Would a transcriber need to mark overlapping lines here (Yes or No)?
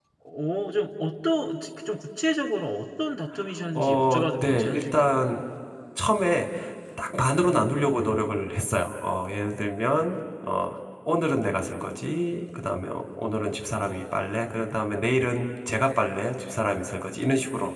Yes